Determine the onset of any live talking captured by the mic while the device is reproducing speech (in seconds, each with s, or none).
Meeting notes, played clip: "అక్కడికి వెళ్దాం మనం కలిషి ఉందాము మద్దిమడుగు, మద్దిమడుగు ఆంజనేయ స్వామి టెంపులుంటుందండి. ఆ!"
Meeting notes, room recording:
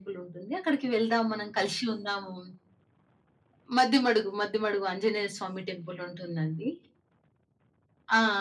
none